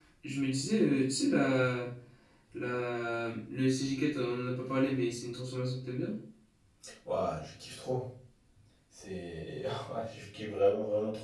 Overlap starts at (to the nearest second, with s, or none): none